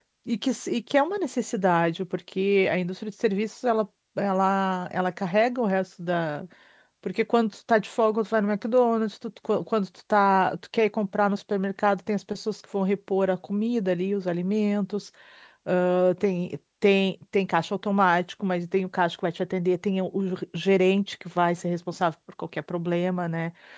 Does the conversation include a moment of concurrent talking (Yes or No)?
No